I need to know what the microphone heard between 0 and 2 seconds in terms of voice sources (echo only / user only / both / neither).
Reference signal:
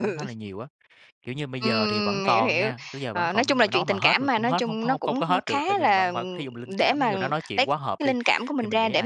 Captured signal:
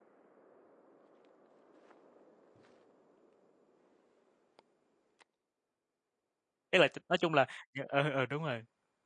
neither